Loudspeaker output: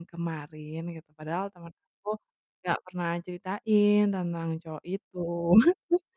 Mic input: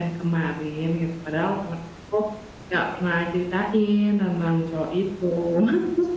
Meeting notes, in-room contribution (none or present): none